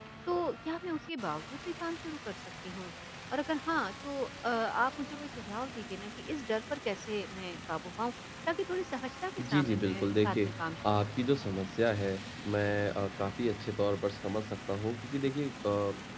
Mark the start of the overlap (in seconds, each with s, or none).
9.4 s